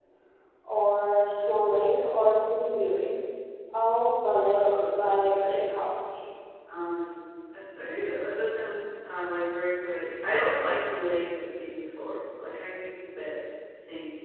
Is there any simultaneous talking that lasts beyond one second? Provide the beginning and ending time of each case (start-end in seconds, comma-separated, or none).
4.5-5.7